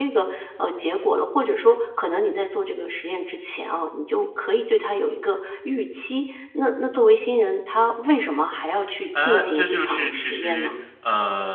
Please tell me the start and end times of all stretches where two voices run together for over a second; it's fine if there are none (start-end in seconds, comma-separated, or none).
9.2-10.7